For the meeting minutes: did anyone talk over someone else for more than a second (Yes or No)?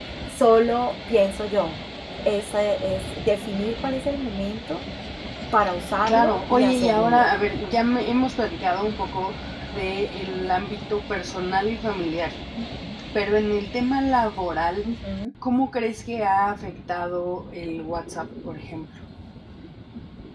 Yes